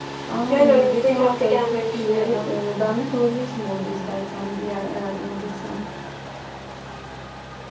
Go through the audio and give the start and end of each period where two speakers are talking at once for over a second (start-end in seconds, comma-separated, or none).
0.5-2.5